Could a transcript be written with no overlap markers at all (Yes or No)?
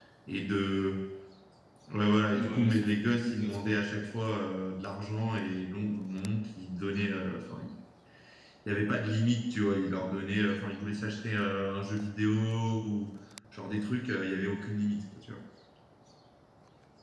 No